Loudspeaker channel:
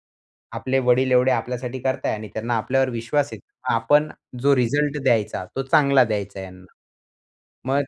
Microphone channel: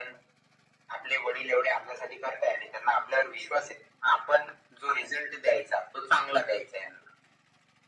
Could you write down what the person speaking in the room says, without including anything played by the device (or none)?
none